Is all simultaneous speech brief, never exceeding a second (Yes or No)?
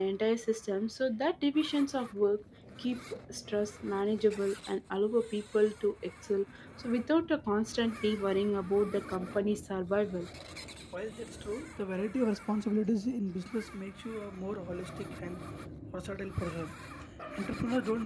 Yes